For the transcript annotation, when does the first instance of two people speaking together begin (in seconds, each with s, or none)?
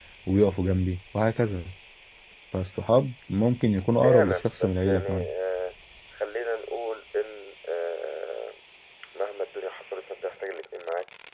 4.0 s